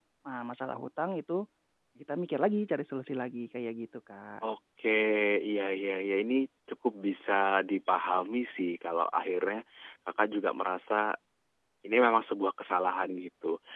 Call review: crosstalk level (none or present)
none